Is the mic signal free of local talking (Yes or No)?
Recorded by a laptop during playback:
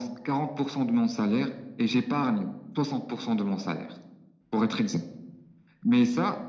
Yes